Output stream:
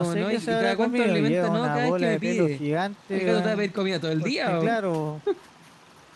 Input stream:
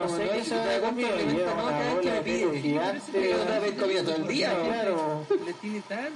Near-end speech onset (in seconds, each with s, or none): 2.6 s